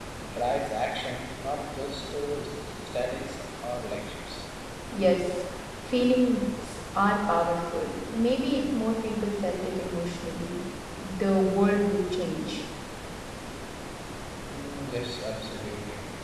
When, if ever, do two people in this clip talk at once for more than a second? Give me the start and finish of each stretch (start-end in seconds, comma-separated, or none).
none